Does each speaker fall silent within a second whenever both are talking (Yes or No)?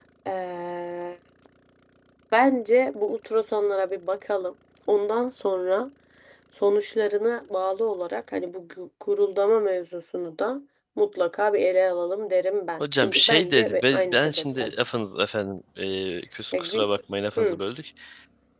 No